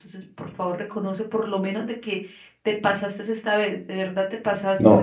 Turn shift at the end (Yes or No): Yes